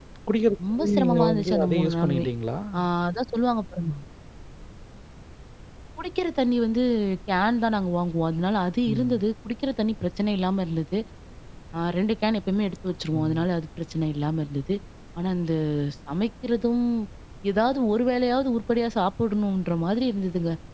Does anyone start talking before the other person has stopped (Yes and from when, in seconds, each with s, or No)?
Yes, from 0.7 s